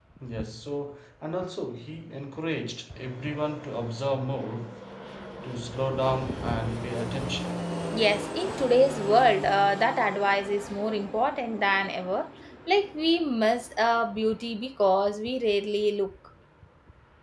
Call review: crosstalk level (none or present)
none